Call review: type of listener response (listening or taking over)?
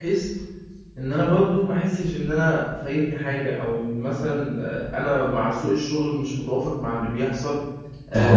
listening